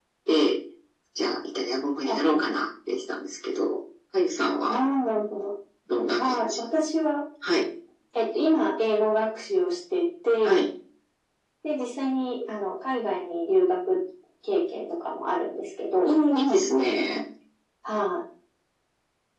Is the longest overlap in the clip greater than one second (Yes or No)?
No